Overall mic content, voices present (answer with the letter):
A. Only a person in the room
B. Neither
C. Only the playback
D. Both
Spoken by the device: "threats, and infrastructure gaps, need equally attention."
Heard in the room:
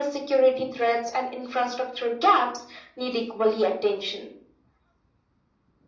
C